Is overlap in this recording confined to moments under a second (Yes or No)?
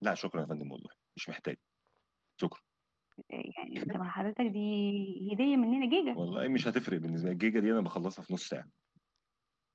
Yes